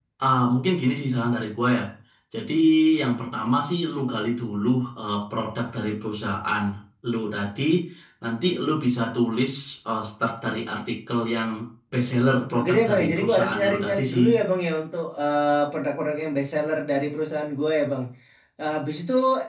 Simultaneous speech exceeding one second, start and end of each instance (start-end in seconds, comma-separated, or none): 12.6-14.2